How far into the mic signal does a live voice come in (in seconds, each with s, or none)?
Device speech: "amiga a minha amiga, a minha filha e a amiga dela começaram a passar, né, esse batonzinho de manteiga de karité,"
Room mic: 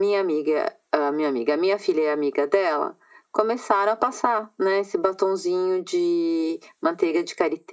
none